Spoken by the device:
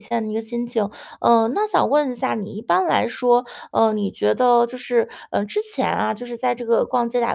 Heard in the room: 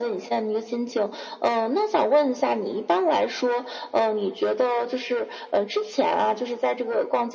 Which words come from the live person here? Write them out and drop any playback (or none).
none